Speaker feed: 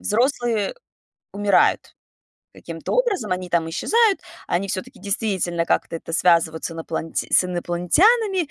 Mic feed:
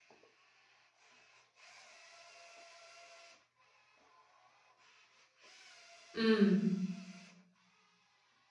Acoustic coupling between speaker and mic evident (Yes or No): No